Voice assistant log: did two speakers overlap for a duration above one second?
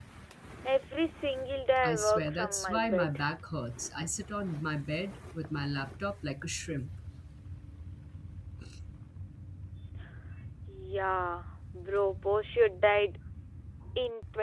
Yes, from 1.8 s

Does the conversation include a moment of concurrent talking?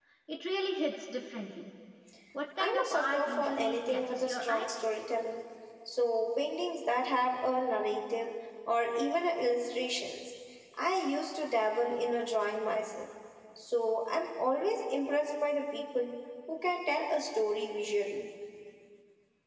Yes, from 2.6 s

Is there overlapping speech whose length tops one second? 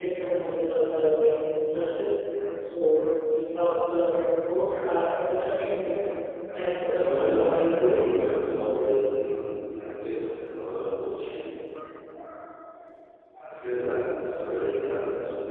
Yes, from 6.8 s

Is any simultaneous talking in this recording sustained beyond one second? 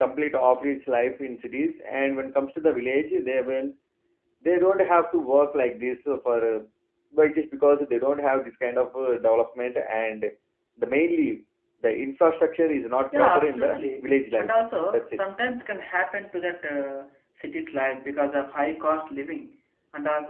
Yes, from 13.1 s

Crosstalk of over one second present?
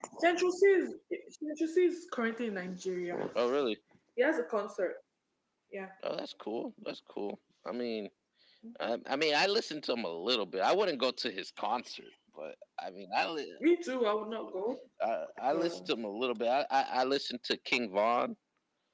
No

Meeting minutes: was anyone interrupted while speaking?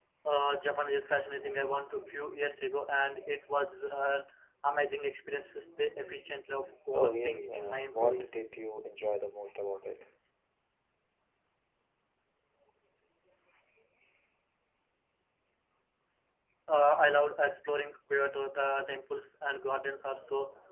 Yes, from 6.9 s

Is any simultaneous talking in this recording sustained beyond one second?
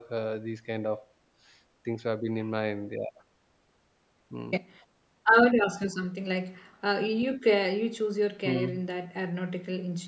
No

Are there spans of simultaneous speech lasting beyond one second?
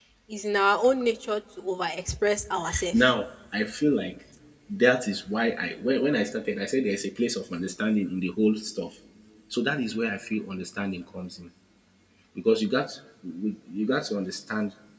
No

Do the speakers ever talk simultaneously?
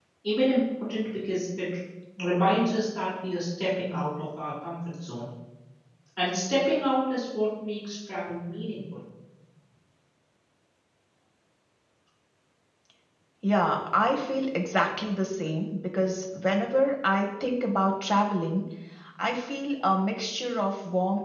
No

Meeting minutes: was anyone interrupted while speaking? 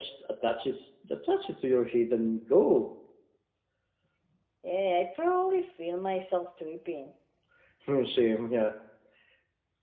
No

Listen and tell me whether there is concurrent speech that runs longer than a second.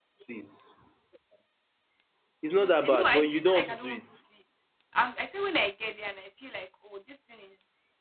Yes, from 2.6 s

